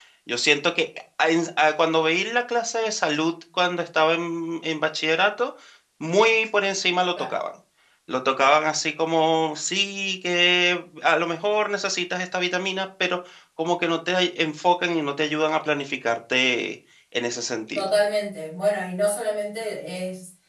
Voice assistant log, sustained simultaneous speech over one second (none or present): none